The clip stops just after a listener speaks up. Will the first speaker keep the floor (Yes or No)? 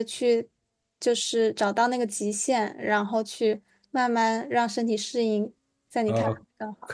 No